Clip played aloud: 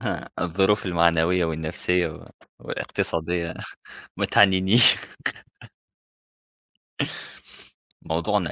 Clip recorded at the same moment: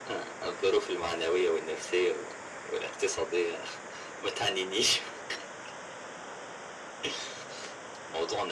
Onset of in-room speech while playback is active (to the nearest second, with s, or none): none